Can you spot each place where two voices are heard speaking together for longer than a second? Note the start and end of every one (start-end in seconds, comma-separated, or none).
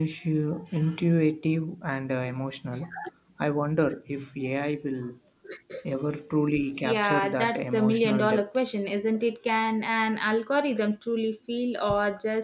6.8-8.4